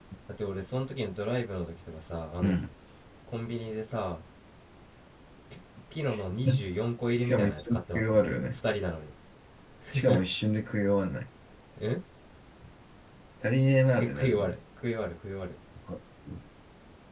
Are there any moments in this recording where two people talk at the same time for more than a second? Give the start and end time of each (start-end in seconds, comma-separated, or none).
7.2-8.6